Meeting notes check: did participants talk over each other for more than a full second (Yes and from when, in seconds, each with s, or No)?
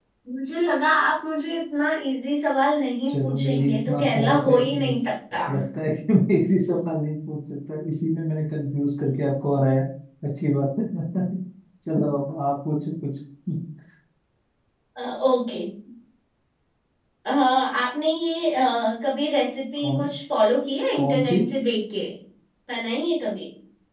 Yes, from 3.1 s